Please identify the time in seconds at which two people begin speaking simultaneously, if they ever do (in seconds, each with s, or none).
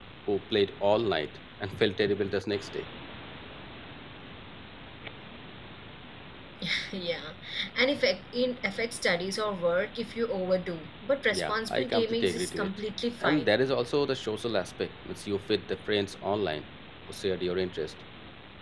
11.3 s